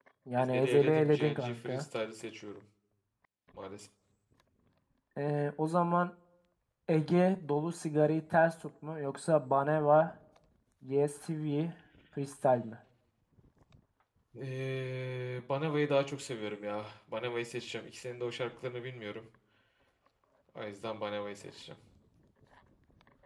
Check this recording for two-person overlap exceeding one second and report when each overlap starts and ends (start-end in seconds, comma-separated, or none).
0.5-1.8